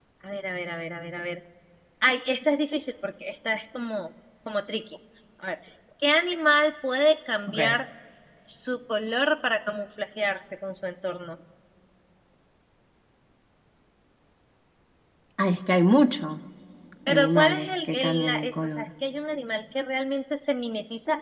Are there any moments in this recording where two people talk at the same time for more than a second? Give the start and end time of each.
17.1-18.9

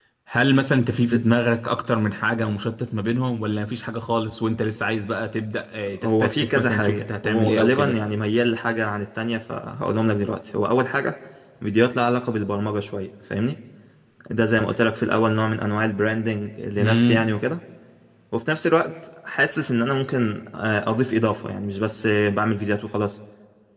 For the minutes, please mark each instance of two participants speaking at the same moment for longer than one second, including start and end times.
5.9-8.0

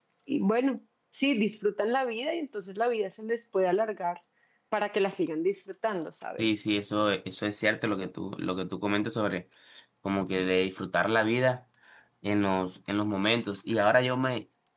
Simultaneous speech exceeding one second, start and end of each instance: none

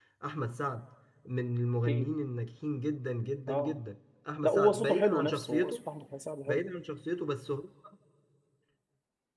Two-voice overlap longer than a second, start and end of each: 4.4-5.8

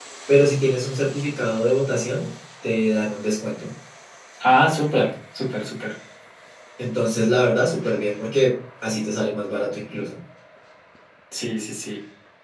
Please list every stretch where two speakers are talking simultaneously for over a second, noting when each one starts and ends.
none

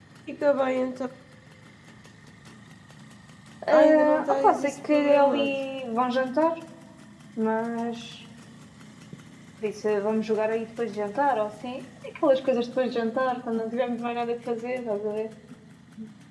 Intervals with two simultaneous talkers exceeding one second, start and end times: 3.7-5.6

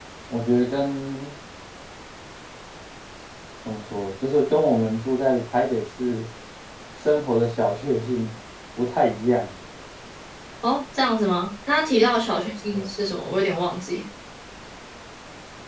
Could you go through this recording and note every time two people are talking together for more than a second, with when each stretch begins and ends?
none

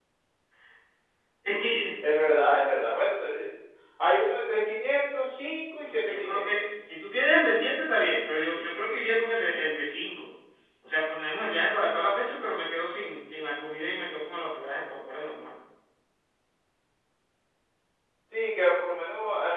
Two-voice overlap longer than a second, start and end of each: none

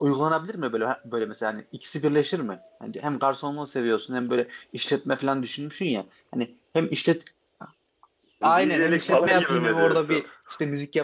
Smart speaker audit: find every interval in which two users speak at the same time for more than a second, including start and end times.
8.6-10.2

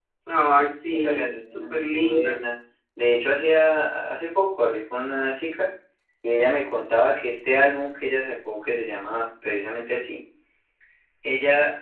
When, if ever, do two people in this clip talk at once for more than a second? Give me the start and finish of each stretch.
0.9-2.4

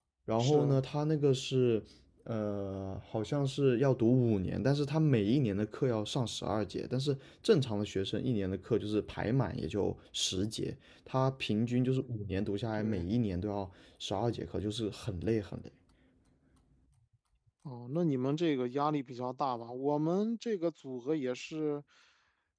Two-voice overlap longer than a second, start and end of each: none

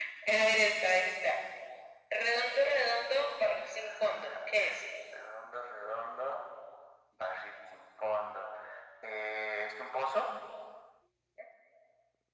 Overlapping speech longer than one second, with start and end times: none

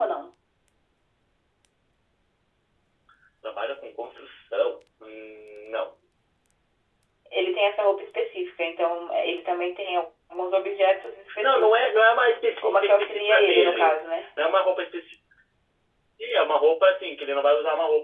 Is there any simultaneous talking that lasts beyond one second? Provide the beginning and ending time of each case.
12.6-14.0

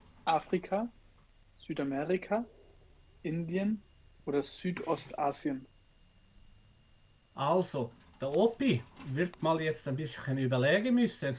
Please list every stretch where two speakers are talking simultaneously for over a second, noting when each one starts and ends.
none

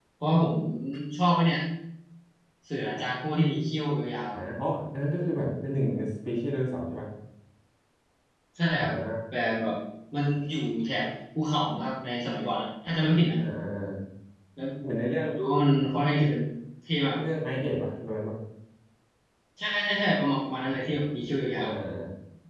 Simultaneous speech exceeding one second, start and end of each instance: none

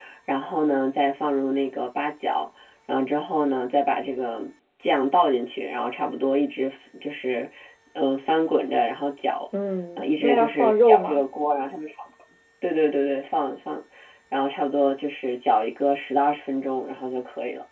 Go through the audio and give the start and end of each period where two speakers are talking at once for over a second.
10.0-11.2

